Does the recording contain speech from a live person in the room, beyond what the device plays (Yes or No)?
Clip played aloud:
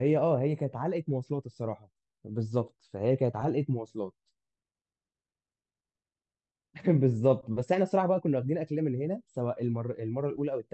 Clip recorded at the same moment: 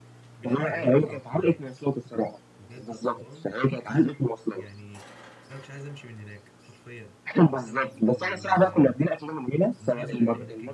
Yes